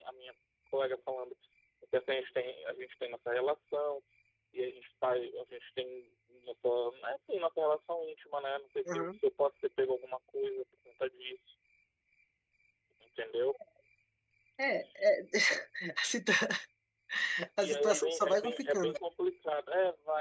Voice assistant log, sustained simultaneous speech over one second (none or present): present